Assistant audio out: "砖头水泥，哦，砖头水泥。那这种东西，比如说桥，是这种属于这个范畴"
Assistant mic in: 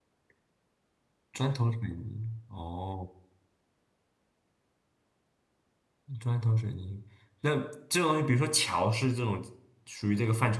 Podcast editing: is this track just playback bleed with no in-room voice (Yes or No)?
Yes